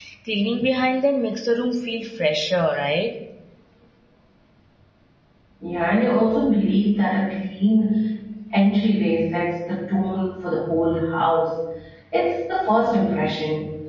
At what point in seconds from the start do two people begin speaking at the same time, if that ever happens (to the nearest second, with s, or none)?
none